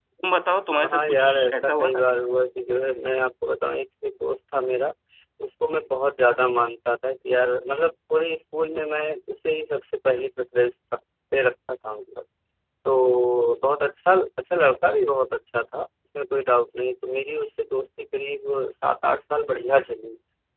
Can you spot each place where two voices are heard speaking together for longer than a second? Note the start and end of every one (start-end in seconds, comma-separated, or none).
0.8-2.0